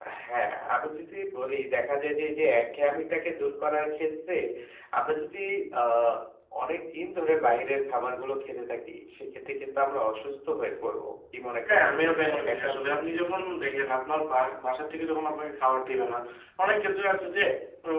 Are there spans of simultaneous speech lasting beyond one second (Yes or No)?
Yes